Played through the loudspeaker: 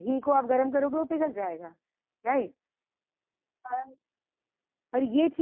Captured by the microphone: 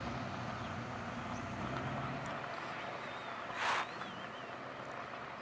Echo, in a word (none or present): none